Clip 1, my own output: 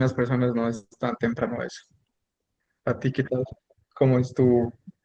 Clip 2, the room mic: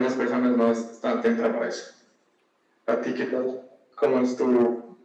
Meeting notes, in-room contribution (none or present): none